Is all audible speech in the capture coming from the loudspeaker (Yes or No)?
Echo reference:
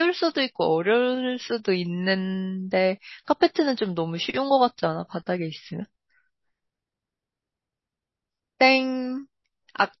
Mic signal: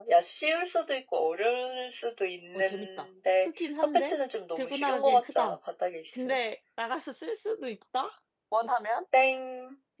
No